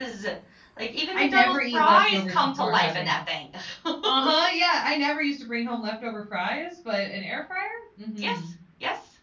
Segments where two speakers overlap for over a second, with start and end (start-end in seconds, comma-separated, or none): 1.1-3.1